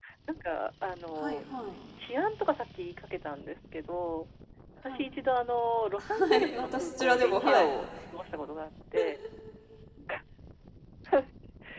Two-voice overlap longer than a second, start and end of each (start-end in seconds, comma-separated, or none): 6.0-7.7